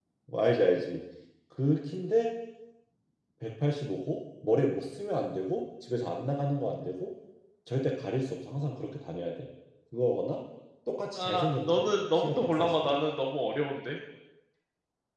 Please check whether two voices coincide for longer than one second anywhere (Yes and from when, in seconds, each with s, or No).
Yes, from 11.1 s